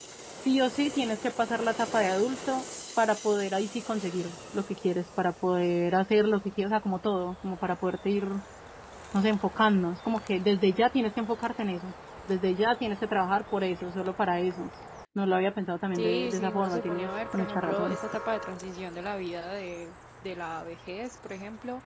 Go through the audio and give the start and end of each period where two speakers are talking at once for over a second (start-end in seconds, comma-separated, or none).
16.0-18.0